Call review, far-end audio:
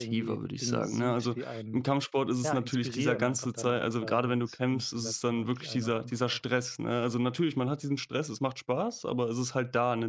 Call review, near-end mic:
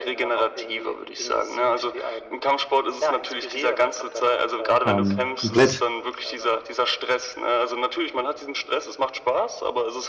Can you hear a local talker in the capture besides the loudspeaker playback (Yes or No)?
Yes